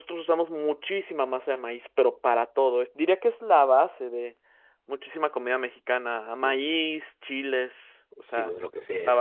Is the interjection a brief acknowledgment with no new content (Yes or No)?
No